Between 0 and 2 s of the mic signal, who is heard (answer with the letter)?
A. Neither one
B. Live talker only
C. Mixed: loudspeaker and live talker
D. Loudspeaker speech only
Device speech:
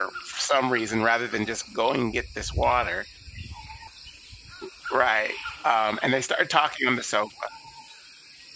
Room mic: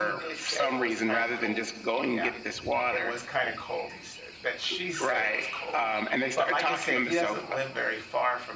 C